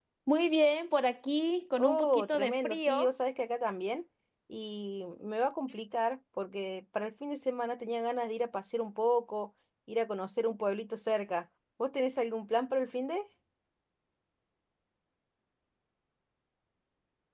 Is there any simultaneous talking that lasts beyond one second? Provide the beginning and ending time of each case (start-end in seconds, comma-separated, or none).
1.8-3.1